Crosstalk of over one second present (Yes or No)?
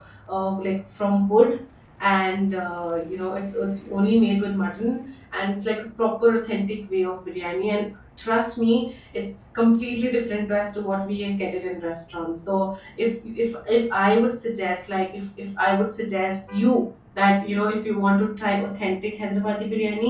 No